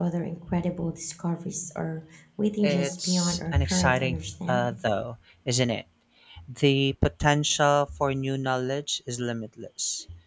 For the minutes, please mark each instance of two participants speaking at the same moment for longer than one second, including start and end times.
2.6-4.8

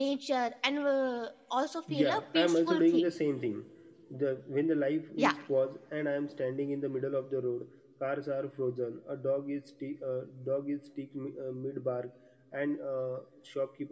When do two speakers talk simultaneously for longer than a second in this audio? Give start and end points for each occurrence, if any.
1.9-3.1

